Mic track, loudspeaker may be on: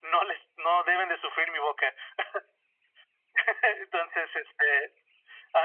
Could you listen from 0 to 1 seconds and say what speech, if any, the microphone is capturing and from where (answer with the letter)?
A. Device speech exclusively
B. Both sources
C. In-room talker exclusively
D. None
A